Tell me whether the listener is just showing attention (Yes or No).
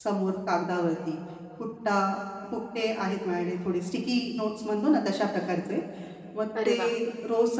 Yes